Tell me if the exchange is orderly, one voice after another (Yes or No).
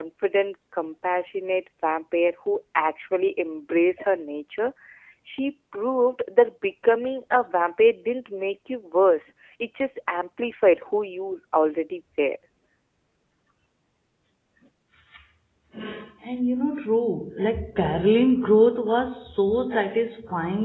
Yes